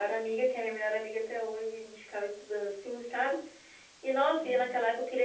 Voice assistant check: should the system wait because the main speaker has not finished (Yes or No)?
Yes